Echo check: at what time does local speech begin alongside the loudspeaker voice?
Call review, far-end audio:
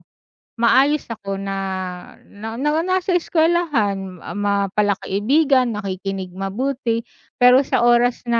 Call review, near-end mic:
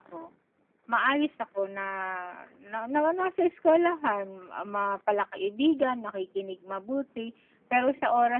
none

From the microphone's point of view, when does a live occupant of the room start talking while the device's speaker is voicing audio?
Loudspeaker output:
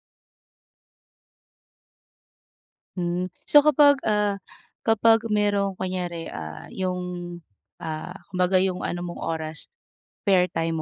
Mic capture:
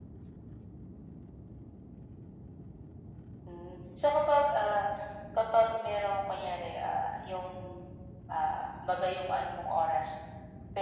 none

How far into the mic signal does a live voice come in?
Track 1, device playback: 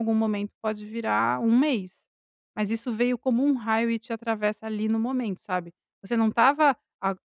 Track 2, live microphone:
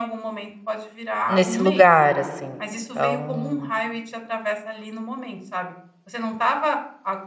1.3 s

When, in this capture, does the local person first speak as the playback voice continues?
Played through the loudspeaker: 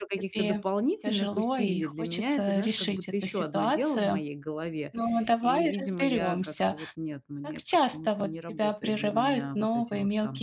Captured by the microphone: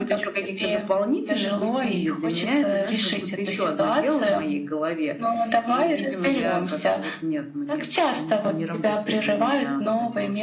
none

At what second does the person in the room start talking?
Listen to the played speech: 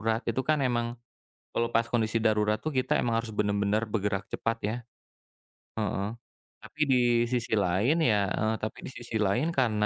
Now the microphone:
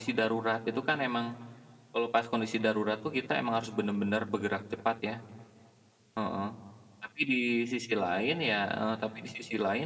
none

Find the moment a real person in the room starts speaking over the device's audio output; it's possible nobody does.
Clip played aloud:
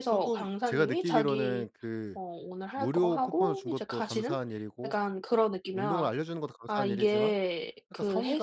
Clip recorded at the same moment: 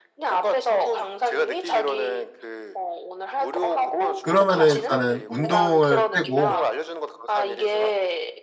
4.2 s

